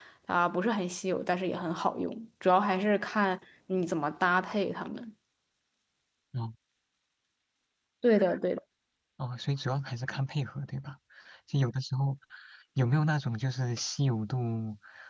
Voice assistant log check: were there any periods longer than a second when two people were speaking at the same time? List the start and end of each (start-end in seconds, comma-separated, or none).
none